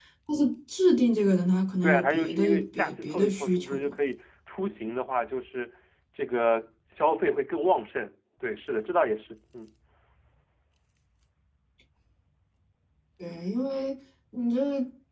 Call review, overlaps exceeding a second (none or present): present